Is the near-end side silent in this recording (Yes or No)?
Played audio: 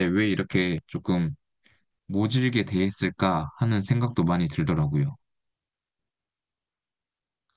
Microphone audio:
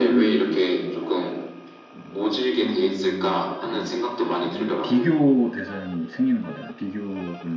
No